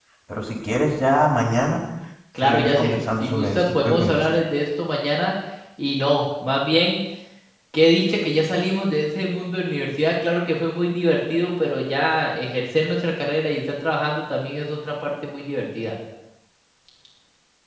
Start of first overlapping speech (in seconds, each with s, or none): 2.4 s